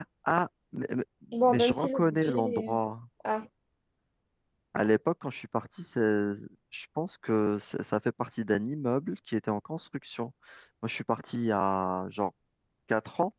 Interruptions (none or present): present